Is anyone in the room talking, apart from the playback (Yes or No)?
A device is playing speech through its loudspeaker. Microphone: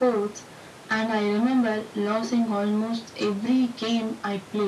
No